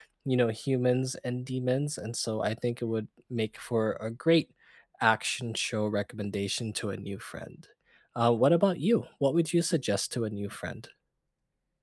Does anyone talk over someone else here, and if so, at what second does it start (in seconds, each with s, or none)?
none